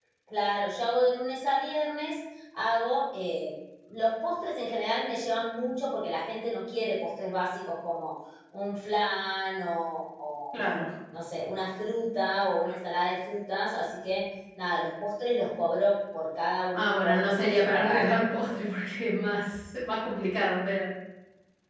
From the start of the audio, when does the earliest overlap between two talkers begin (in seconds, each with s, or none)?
16.7 s